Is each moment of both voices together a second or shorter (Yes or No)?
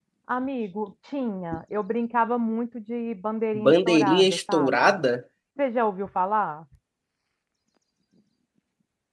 No